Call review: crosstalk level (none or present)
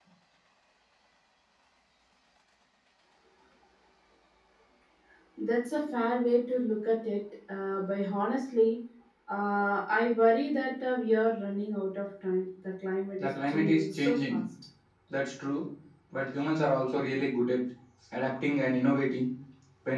present